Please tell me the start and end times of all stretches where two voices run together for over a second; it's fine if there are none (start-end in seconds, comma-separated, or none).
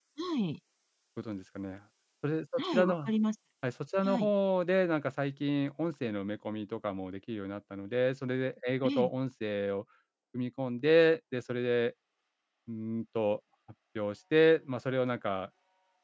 none